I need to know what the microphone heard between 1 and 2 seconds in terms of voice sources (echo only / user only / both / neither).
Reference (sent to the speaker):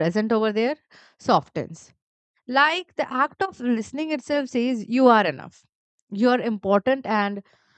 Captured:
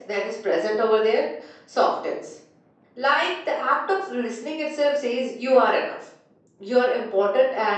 echo only